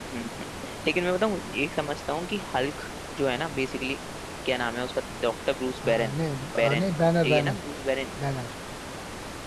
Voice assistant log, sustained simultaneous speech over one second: none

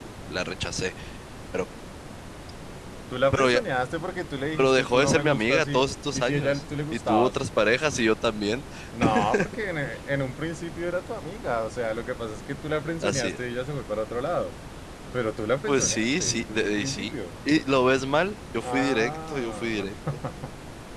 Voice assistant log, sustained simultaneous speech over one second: present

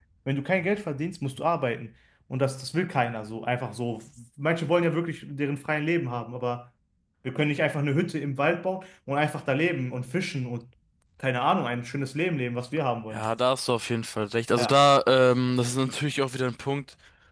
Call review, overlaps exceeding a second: none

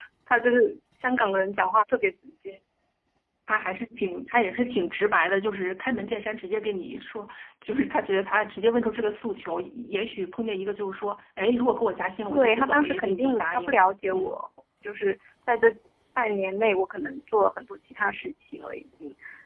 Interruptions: present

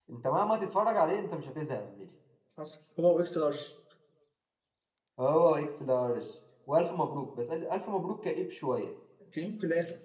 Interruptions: none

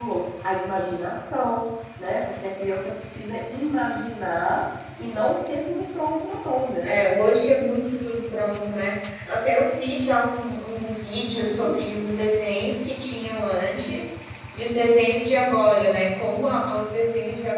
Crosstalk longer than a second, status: none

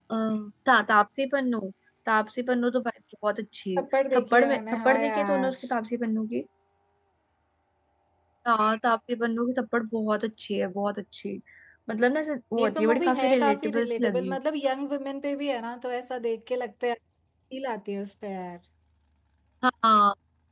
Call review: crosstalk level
present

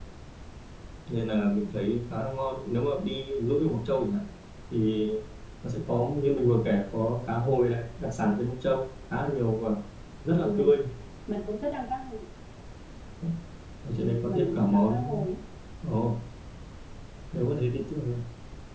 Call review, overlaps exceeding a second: present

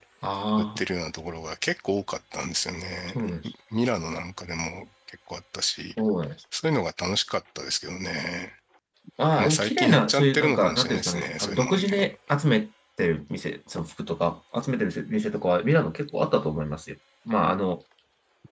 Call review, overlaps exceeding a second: present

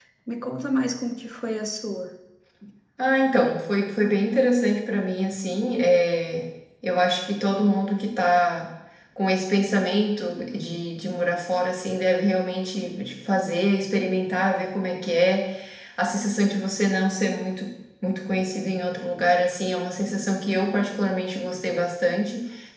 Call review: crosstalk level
none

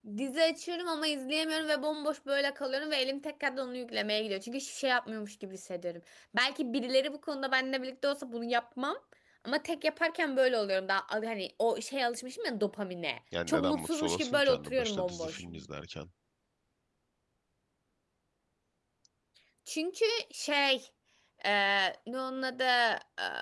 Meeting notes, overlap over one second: present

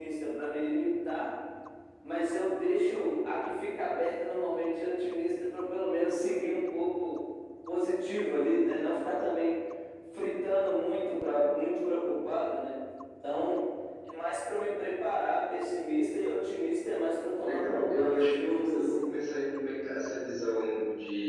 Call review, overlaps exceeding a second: present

